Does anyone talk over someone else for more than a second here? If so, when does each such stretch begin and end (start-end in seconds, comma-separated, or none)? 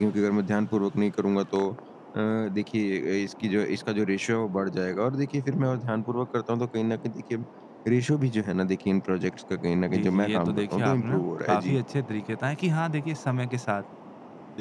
9.9-11.8